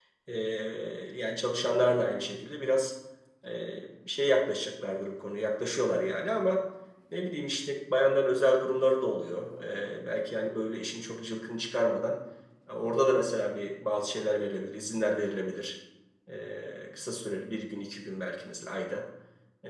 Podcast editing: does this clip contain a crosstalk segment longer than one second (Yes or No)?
No